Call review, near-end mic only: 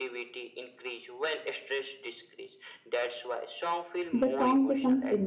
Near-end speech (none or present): present